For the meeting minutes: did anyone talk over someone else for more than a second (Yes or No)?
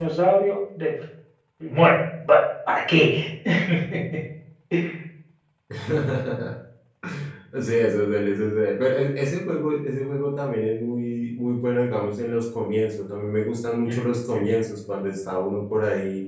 No